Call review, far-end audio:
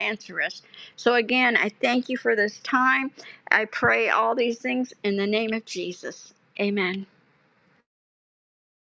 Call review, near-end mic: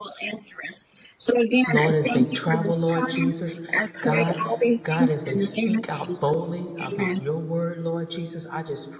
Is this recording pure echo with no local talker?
No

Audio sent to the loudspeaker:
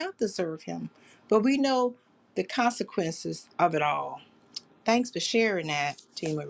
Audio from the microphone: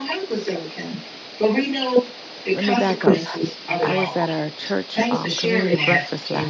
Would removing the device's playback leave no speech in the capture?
No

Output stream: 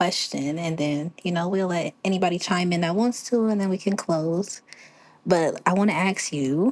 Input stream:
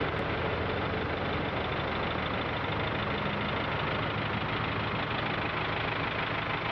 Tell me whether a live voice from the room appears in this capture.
No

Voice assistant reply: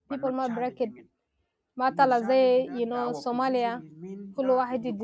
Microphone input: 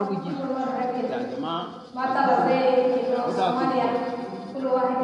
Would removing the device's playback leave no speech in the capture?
No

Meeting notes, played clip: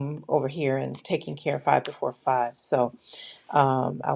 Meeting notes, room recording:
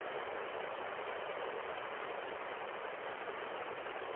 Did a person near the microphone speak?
No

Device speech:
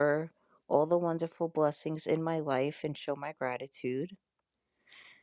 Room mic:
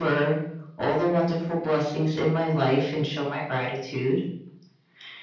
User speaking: No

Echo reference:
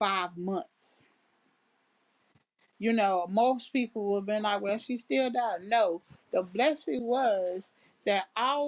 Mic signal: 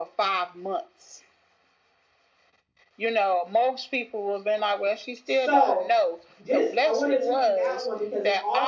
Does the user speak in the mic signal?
Yes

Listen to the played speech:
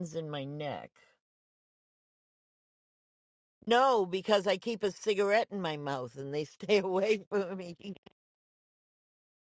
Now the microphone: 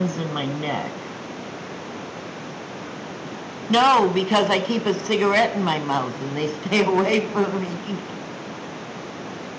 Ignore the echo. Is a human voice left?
No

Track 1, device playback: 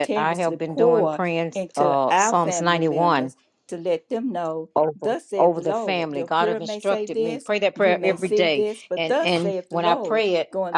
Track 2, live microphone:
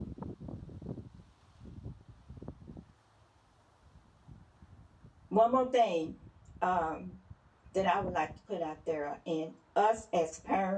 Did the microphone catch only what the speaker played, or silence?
No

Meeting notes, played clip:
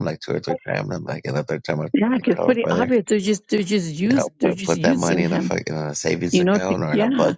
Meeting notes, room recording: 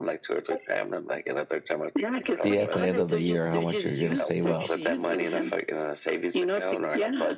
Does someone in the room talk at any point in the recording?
Yes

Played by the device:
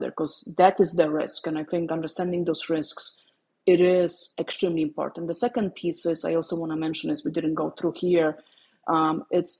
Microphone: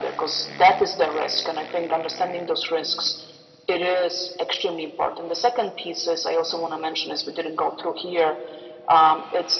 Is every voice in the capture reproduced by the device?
Yes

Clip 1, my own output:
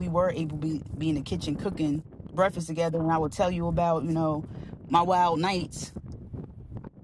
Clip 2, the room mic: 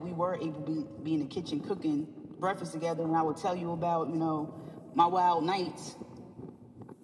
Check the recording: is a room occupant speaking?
No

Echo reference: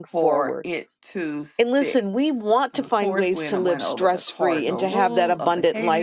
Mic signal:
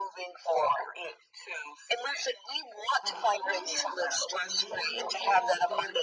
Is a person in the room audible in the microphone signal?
Yes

